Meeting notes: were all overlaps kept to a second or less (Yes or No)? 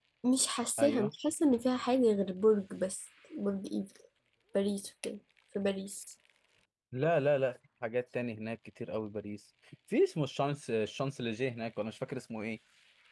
Yes